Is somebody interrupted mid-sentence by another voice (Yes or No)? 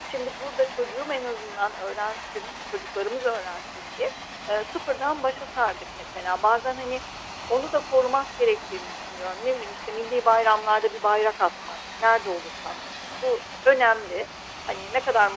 No